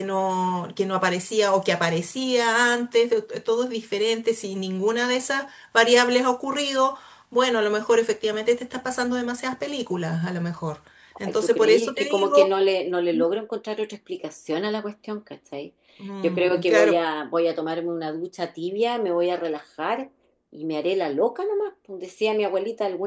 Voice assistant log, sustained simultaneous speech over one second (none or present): present